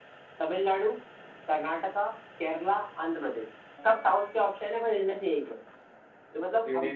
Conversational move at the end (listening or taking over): listening